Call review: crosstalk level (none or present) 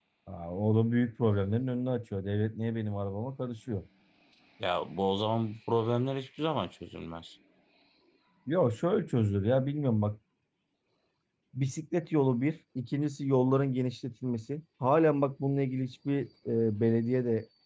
none